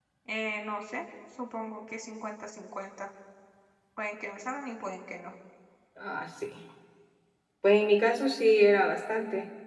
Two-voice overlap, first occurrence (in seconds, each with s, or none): none